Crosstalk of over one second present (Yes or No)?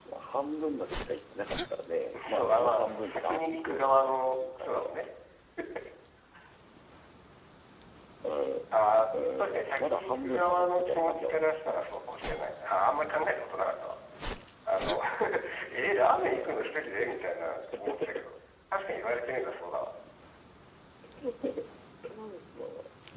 Yes